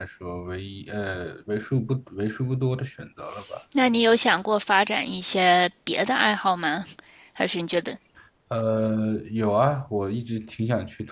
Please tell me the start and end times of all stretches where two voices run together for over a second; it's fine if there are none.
none

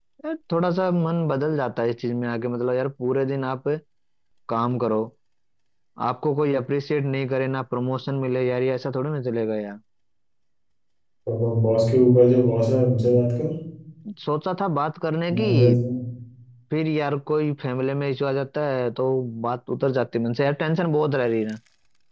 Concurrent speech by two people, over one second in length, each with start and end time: none

